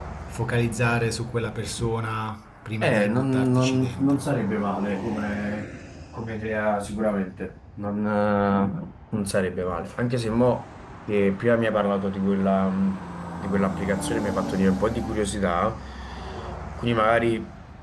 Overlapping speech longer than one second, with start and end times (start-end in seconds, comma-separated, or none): 2.8-4.3